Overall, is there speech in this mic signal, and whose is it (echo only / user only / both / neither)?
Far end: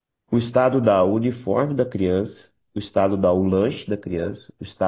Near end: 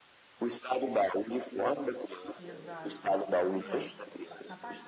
both